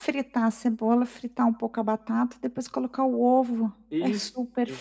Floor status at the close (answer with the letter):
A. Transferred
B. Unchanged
A